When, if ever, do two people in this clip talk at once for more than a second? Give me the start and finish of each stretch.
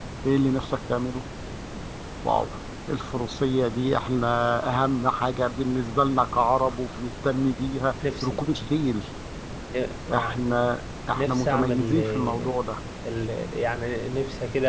11.2-12.6

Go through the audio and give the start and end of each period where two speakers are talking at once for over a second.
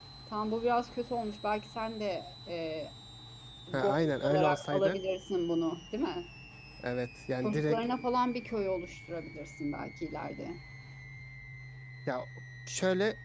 3.7-5.0

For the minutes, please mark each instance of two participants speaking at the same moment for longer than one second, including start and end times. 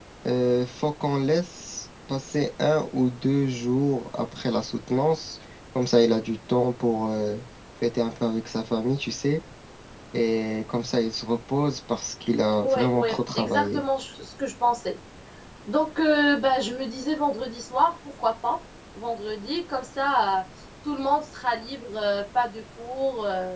12.6-13.8

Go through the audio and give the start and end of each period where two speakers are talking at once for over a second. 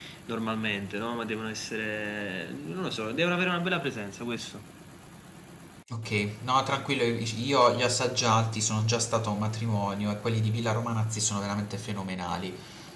none

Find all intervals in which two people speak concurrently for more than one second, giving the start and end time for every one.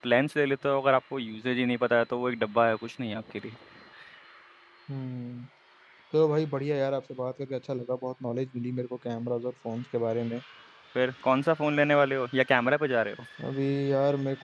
none

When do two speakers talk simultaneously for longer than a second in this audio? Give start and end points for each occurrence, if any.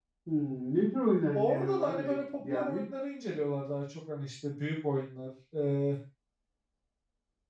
1.3-2.9

